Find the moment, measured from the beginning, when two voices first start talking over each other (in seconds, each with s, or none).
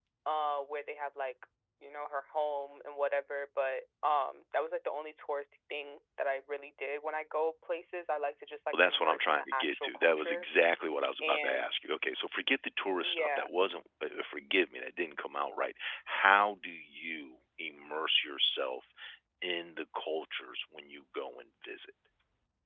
8.7 s